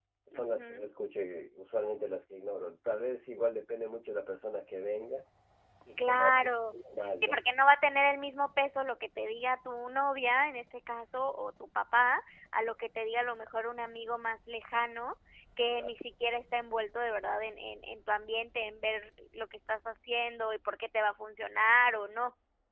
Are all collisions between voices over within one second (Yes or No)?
Yes